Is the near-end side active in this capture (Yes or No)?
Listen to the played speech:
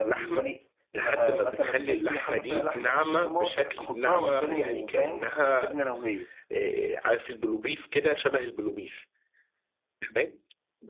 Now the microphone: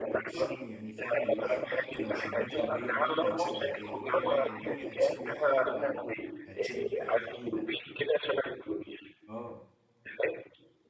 Yes